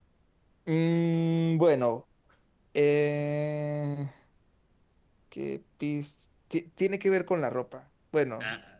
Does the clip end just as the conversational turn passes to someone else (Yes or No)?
No